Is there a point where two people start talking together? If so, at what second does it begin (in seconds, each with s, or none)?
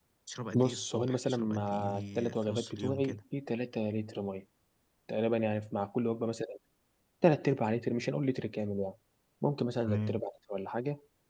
0.5 s